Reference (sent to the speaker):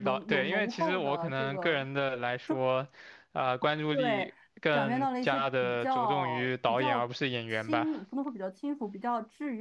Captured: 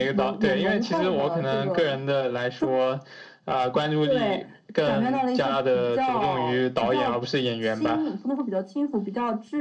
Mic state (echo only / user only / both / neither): echo only